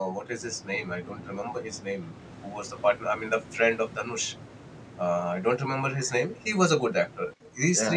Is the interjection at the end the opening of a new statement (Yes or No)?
Yes